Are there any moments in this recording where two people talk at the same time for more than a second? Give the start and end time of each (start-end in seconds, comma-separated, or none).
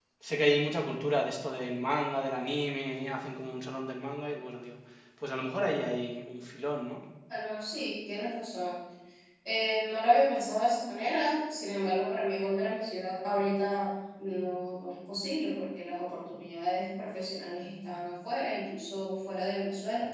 none